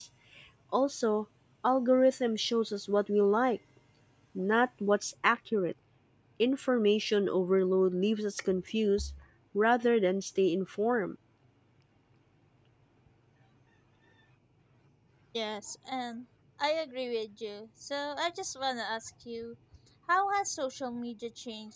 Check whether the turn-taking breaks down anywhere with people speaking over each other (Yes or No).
No